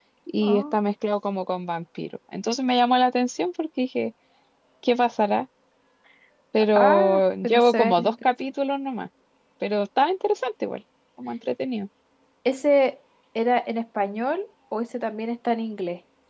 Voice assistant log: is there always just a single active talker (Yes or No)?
No